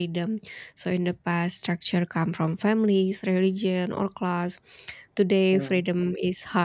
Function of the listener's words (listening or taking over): listening